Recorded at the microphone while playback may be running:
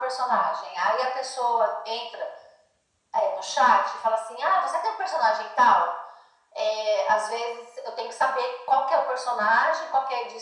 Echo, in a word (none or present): present